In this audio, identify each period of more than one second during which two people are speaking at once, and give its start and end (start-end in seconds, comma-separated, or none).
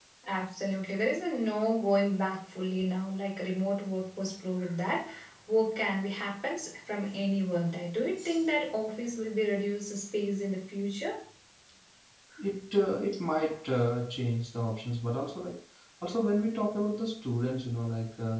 none